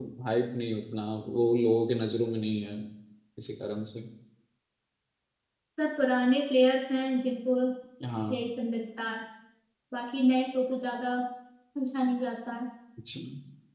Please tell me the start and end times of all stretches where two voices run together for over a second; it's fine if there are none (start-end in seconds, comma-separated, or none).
none